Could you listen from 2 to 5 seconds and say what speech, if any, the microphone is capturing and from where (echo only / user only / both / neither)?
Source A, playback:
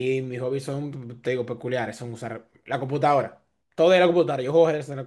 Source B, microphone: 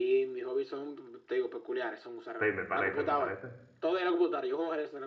both